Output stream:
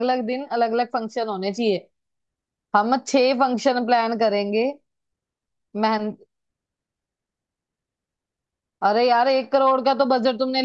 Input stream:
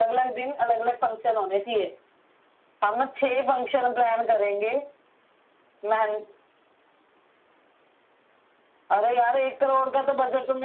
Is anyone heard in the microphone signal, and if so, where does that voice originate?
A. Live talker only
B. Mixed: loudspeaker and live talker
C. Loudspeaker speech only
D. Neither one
C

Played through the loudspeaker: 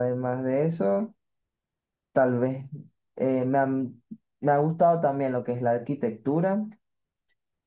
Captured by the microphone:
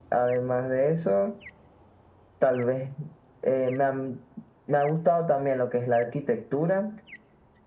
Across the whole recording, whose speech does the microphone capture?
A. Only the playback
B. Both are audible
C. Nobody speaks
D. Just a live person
A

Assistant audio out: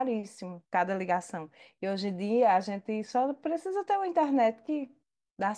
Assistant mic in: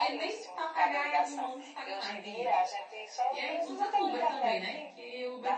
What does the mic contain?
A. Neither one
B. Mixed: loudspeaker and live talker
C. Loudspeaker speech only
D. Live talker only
B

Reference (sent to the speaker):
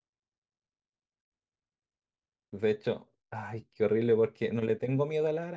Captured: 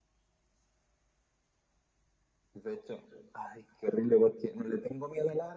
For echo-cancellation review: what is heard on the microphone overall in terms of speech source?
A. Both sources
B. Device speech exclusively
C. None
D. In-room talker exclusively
B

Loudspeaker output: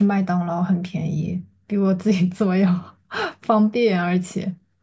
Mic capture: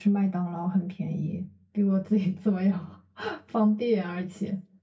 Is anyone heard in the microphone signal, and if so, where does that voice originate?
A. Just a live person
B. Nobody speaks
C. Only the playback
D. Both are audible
C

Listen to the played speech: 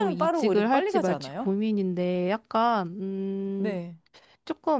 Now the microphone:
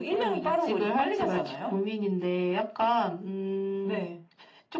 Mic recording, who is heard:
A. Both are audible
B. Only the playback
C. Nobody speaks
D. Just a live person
B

